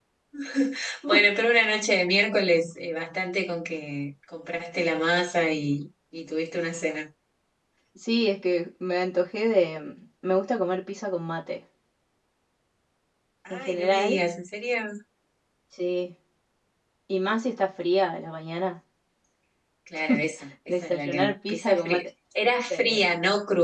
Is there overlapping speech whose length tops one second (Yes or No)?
Yes